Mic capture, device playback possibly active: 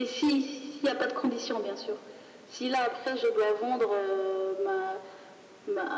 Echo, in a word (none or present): present